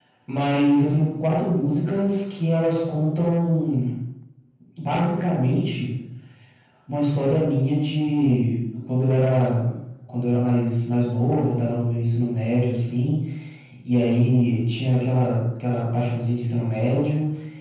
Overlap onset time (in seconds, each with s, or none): none